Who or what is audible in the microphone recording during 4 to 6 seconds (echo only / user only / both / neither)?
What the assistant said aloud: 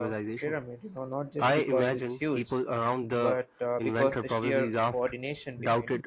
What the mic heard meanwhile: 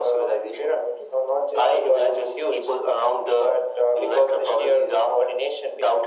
echo only